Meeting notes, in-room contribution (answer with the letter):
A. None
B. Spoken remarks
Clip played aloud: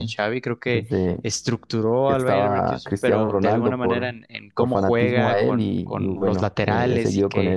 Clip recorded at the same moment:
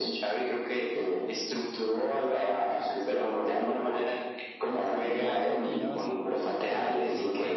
B